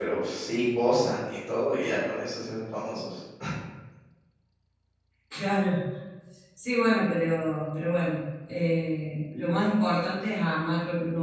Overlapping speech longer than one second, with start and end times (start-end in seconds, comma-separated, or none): none